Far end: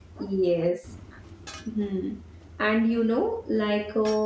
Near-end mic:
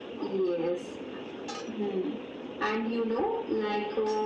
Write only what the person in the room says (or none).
none